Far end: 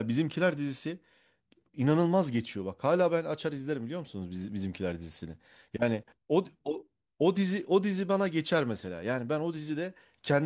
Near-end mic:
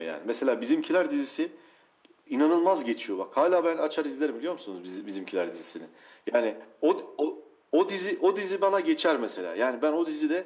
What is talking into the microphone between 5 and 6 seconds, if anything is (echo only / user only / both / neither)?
echo only